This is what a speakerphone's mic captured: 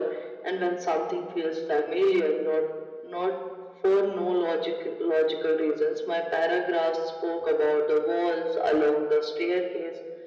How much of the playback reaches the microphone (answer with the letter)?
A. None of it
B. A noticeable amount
B